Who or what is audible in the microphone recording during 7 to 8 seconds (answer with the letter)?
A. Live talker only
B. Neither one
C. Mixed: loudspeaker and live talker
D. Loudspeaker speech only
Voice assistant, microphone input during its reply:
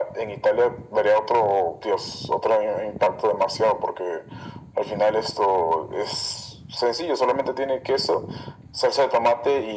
D